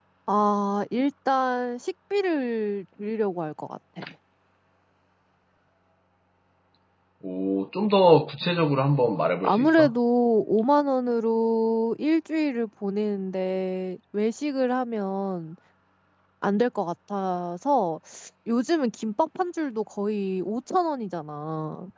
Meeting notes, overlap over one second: none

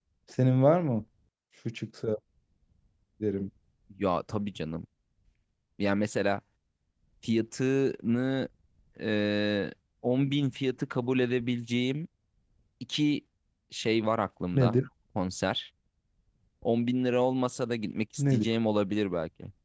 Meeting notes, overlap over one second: none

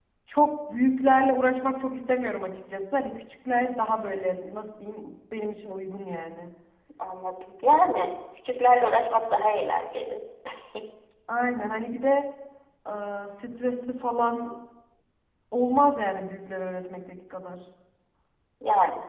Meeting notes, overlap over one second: none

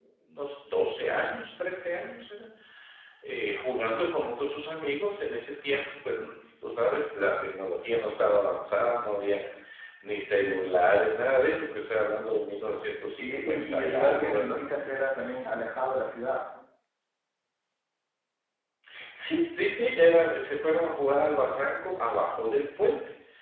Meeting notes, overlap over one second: present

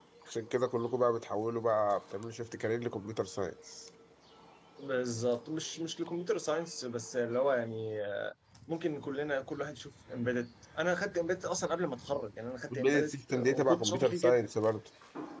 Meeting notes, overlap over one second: present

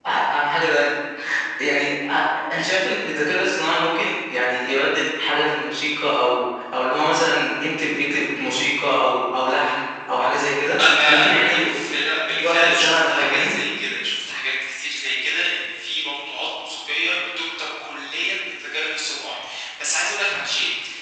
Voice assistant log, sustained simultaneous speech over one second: present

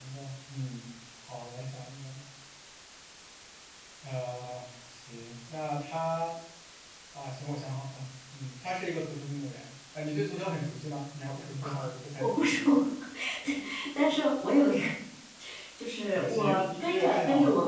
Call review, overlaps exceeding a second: present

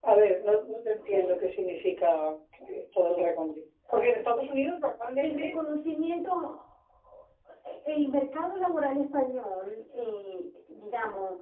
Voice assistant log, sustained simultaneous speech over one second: none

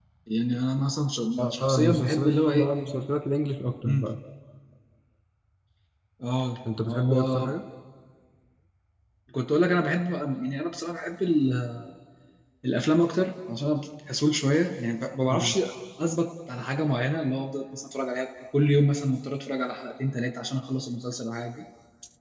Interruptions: present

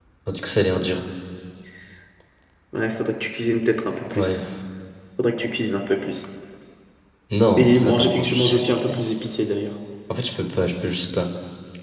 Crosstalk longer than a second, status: present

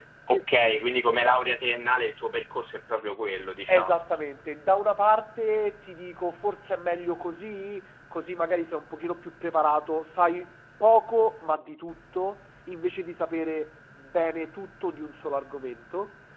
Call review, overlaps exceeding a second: none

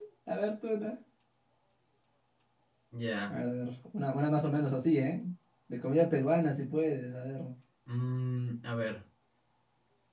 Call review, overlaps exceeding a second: none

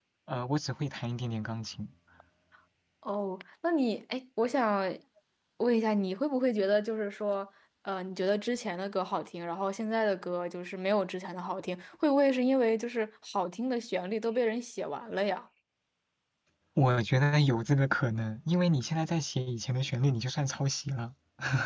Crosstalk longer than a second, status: none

